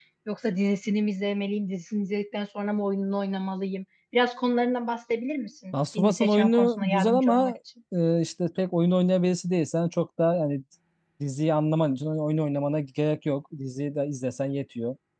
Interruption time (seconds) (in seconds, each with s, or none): 5.7 s